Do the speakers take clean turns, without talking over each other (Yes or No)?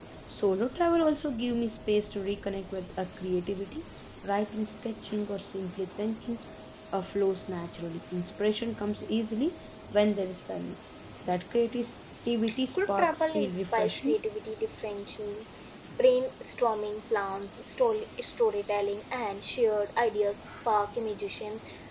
No